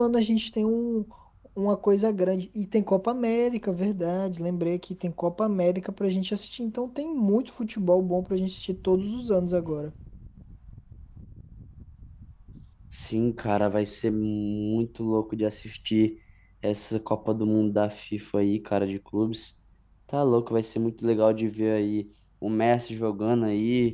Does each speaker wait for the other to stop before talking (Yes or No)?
Yes